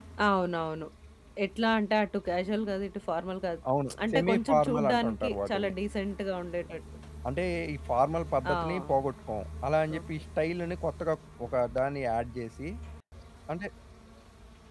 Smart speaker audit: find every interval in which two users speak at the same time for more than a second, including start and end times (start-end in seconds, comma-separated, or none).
4.1-5.7